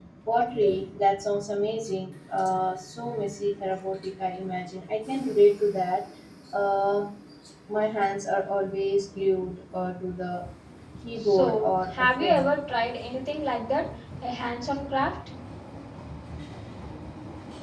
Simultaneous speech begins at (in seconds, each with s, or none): 11.2 s